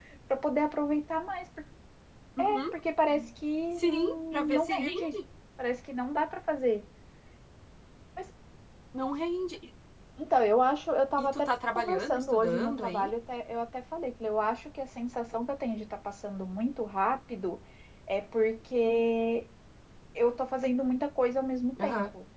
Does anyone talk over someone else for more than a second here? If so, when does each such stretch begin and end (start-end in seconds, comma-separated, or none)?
3.8-5.1, 11.2-13.1